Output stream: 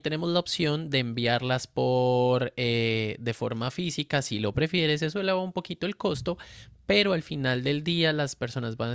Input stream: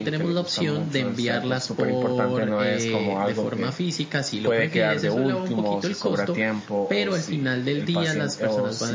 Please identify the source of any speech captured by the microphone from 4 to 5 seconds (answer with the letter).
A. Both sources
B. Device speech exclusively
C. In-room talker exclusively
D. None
A